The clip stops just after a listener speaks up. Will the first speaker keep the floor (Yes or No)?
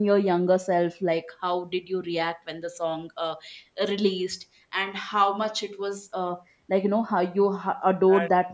Yes